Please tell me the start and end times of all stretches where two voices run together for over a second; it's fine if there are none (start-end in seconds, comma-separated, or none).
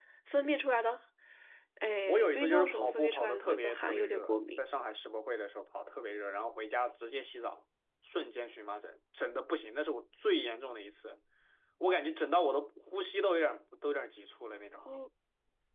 2.1-4.6